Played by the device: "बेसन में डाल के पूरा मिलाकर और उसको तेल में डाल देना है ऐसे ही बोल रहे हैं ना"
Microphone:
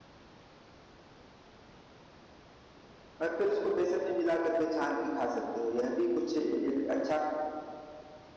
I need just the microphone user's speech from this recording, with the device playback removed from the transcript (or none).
और फिर उसको बेसन में मिला करके छान के खा सकते हो यह भी कुछ एक अच्छा